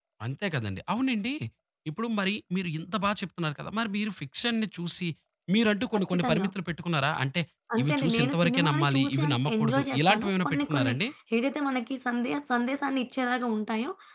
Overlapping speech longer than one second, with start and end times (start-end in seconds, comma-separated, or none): 7.8-10.9